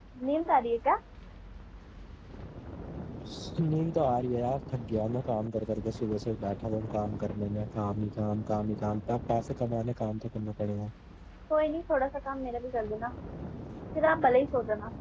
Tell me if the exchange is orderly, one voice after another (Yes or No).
Yes